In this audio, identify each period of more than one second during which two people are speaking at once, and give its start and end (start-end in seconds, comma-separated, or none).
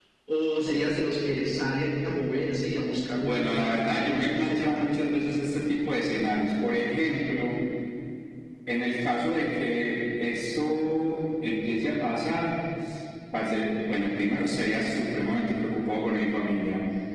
3.2-5.0